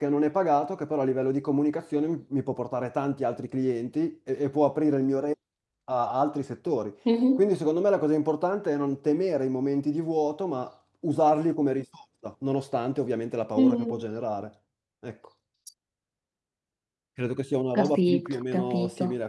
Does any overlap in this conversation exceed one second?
Yes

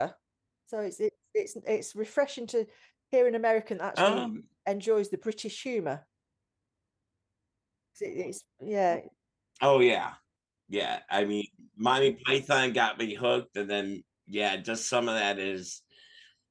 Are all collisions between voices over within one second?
Yes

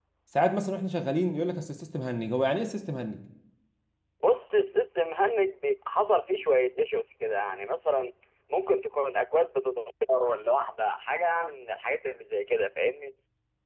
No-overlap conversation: Yes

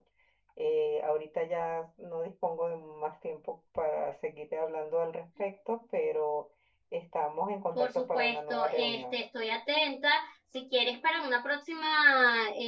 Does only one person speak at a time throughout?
No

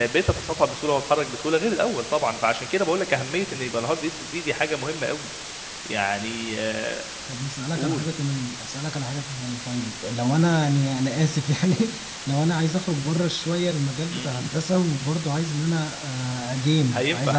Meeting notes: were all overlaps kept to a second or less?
Yes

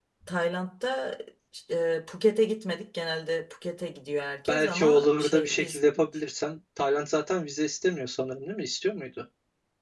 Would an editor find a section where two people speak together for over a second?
Yes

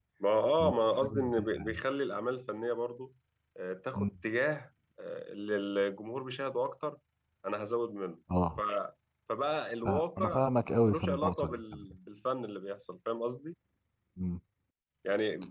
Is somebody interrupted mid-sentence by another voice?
Yes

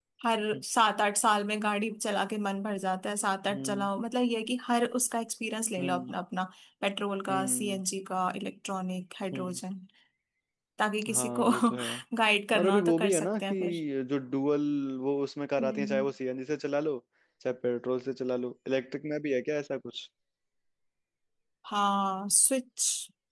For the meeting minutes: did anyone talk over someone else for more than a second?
Yes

